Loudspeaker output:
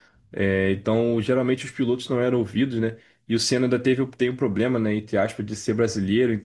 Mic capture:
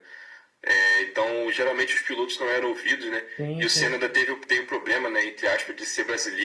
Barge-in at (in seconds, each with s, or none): 3.4 s